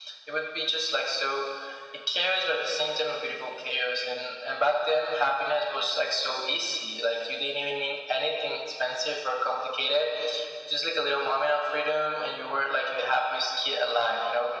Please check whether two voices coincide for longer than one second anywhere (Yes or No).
No